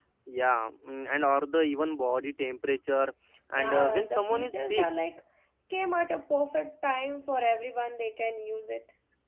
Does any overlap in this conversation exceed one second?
Yes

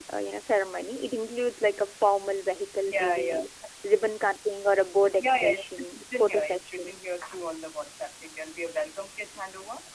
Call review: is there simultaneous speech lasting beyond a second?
Yes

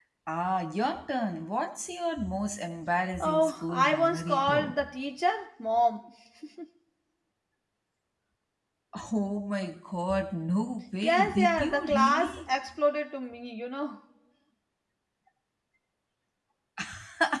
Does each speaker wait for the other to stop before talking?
No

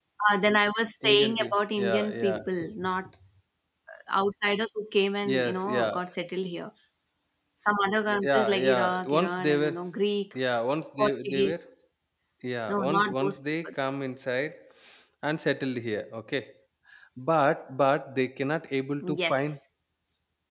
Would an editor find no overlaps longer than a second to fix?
No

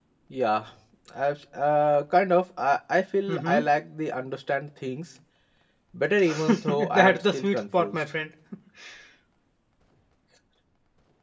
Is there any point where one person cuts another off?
Yes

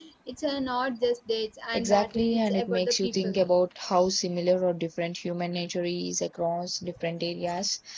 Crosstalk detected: Yes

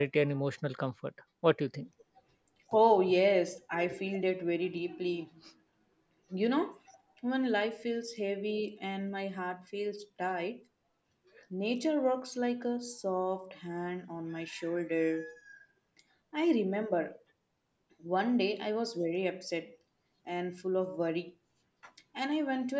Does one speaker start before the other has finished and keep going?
No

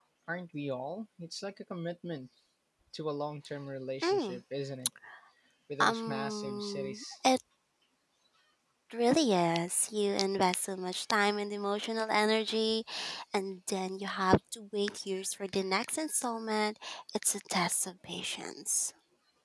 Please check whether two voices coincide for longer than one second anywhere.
Yes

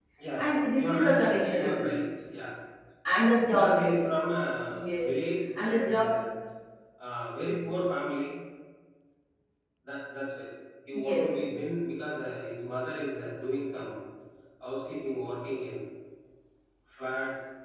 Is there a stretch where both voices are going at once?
Yes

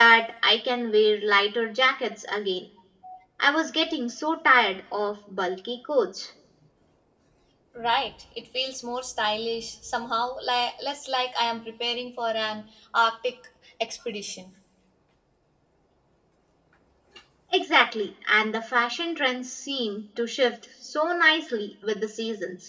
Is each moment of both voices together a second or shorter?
Yes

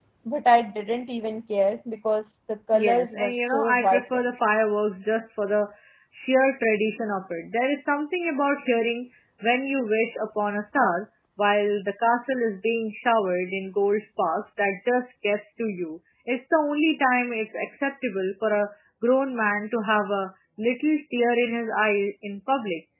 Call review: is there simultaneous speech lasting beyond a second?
Yes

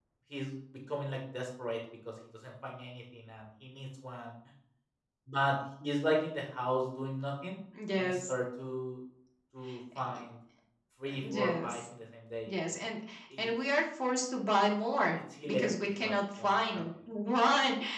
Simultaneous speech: Yes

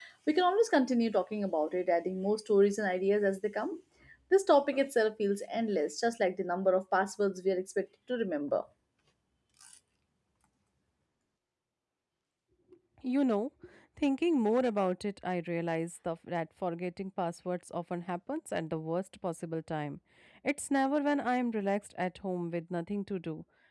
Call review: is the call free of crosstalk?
Yes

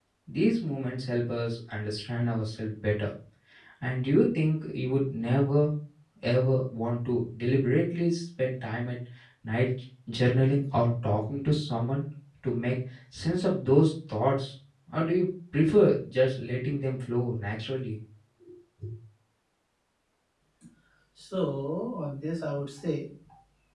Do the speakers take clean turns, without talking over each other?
Yes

